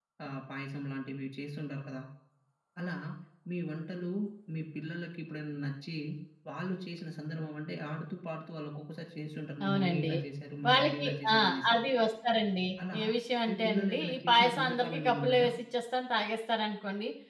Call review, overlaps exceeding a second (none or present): present